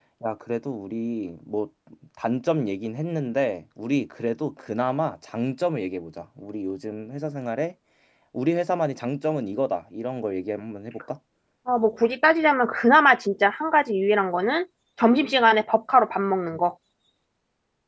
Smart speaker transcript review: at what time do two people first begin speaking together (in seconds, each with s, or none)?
none